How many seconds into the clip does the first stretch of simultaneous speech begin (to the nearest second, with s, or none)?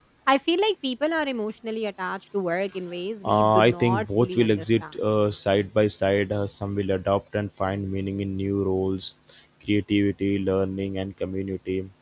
3 s